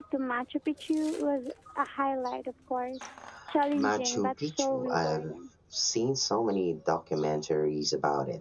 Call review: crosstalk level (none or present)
present